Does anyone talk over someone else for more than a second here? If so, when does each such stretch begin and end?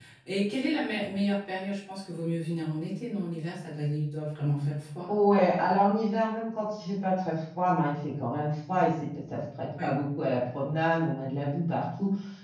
none

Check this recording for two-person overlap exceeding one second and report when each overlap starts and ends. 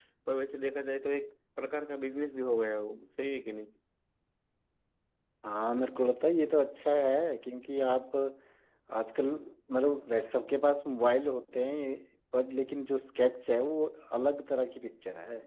none

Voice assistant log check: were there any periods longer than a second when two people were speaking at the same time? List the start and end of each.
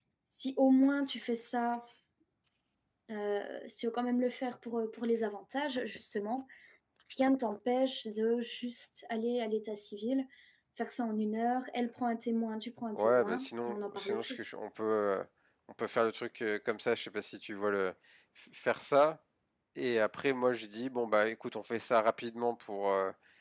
13.0-14.4

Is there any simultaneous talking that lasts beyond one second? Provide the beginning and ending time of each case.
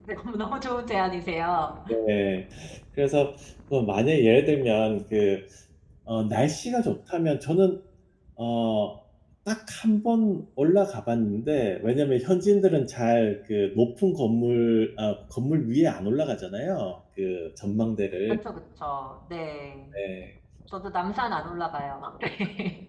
none

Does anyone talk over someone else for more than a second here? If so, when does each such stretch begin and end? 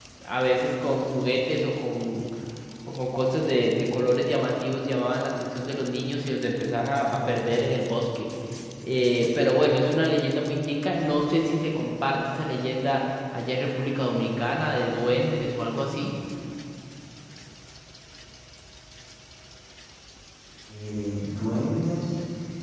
none

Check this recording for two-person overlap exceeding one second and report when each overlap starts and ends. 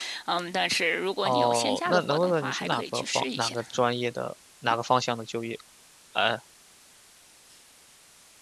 1.2-3.5

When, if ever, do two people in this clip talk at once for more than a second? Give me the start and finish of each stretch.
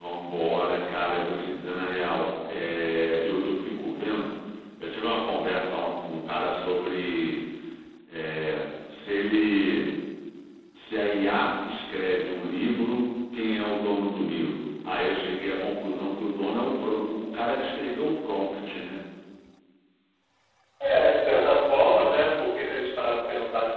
none

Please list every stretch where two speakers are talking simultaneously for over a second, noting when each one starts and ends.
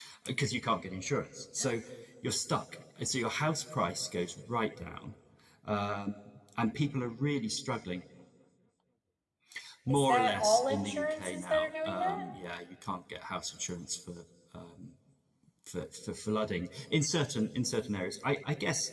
9.9-12.2

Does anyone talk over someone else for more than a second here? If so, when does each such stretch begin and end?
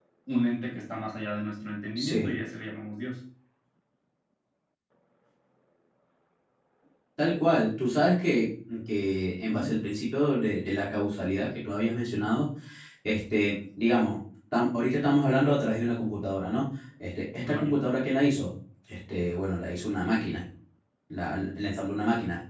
none

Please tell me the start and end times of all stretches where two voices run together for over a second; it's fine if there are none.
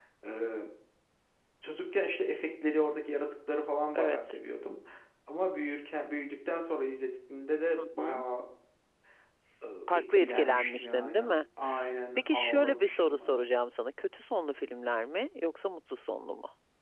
9.9-11.3, 12.2-13.4

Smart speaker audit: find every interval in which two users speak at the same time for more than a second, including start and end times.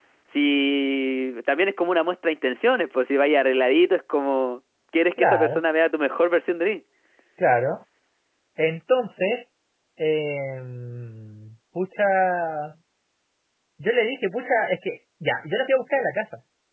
none

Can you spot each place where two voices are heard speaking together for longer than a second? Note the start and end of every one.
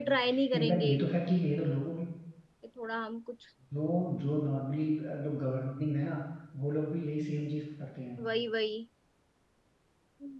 none

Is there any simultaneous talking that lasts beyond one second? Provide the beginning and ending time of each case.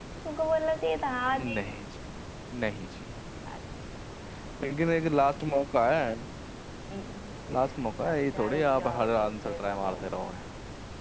8.1-9.9

